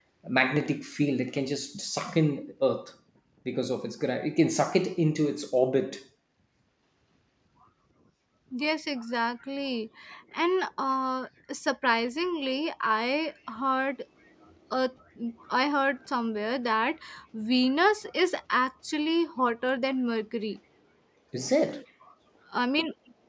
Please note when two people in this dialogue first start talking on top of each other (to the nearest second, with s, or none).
none